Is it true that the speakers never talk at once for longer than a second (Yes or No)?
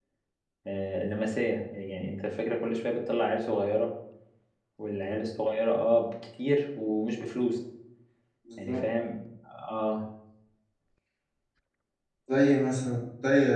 Yes